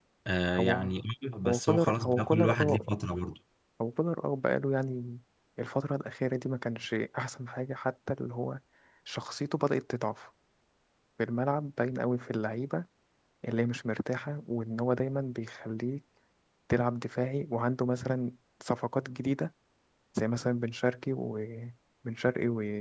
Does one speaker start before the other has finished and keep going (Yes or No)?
Yes